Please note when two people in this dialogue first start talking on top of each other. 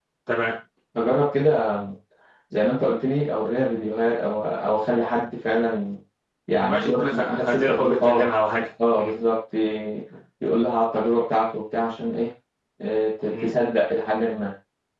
6.6 s

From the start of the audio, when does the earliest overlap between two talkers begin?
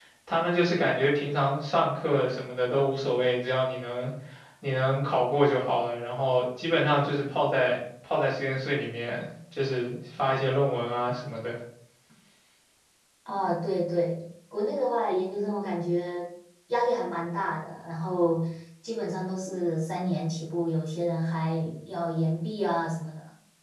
none

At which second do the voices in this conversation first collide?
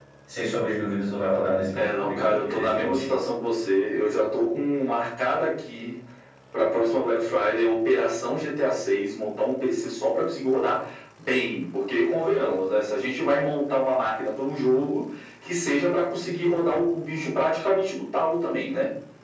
1.8 s

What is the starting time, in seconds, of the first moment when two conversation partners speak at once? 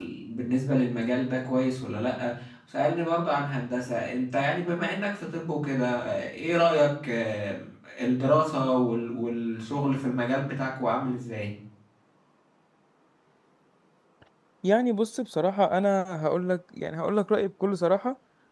none

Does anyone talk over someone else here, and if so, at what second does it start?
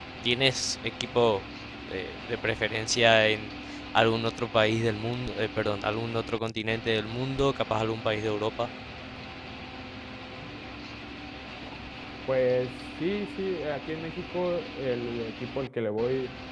none

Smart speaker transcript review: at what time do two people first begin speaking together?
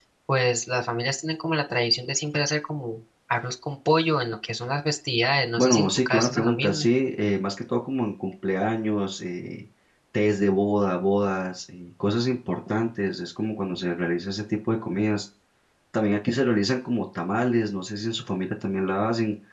5.6 s

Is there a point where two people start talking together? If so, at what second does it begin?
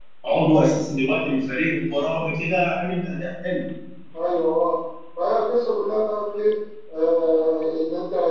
none

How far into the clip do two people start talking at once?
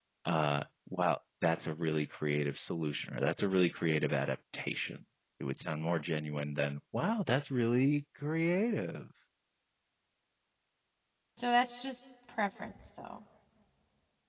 none

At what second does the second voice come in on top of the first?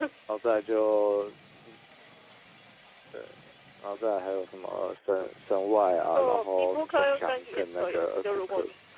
6.1 s

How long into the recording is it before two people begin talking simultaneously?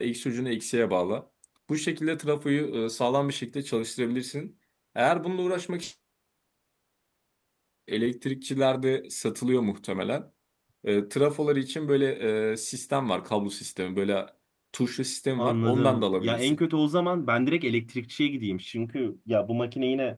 15.4 s

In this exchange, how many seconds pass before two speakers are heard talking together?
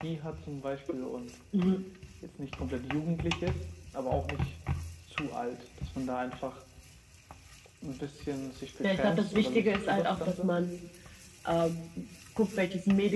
8.8 s

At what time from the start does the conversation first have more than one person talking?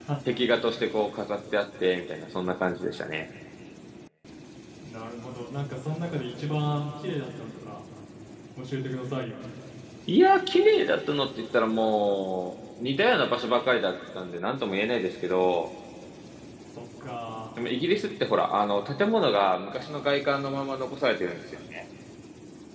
none

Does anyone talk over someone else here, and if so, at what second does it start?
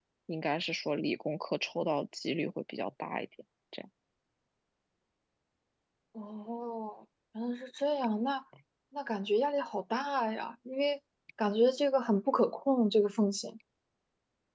none

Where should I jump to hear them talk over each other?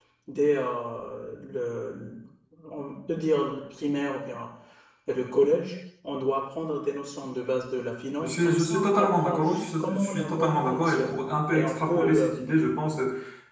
8.2 s

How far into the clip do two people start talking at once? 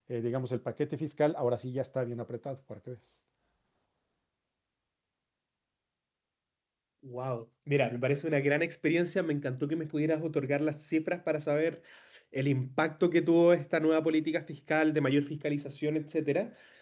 none

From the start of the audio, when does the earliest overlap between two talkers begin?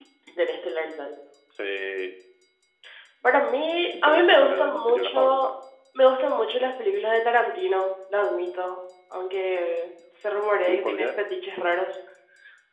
4.1 s

